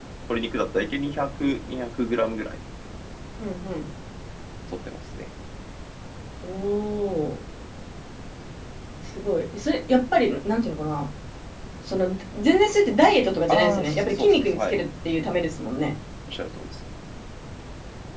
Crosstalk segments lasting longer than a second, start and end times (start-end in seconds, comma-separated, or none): 13.5-14.8